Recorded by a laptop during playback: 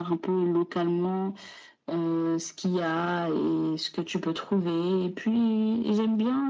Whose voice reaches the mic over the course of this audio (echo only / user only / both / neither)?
echo only